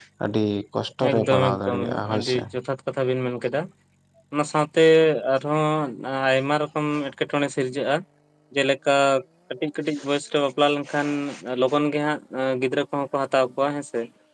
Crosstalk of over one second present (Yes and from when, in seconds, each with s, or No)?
Yes, from 1.1 s